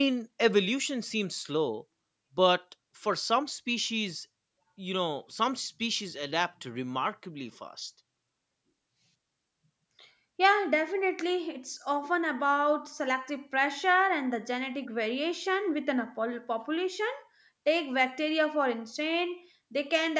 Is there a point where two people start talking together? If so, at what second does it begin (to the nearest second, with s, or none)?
none